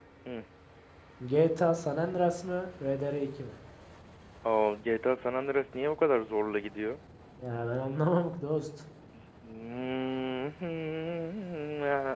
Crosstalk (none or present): none